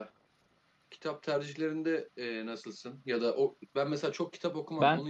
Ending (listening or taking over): listening